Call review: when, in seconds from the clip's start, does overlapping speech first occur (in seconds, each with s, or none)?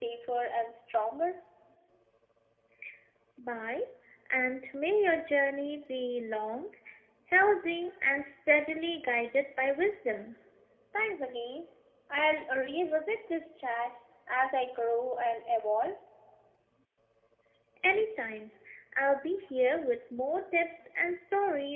none